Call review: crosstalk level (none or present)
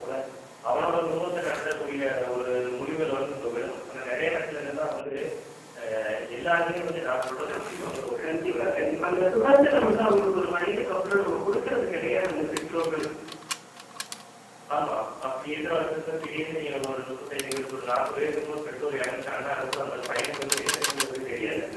present